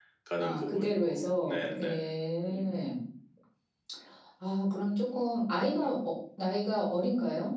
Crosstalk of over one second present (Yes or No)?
Yes